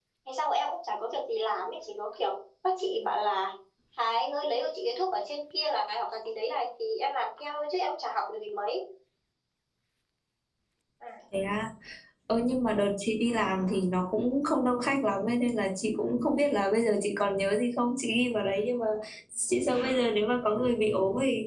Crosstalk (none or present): none